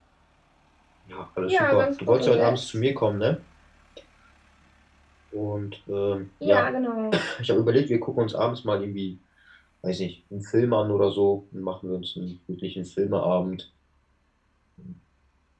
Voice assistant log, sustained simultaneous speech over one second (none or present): present